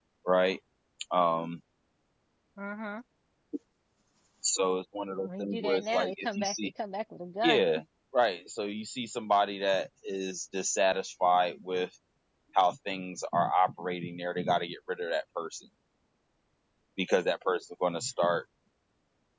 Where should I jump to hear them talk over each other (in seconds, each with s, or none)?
5.2 s